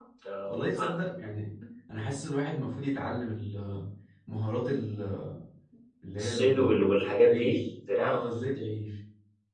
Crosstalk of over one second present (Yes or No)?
Yes